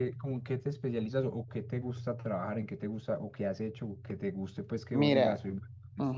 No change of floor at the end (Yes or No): No